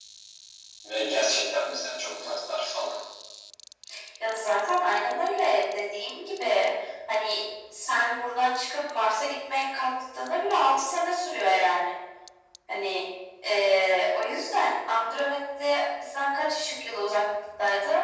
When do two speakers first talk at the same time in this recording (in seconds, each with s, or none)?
none